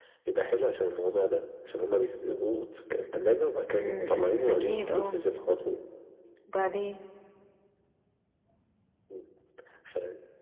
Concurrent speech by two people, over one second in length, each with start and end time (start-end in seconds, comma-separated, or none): 3.8-5.2